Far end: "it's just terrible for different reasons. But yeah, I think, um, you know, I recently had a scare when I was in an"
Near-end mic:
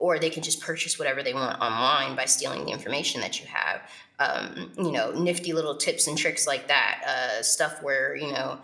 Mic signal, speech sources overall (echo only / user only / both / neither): user only